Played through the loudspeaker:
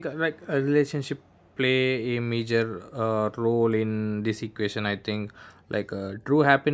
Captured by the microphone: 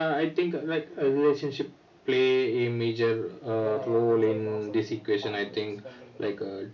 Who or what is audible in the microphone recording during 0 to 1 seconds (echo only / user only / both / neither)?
echo only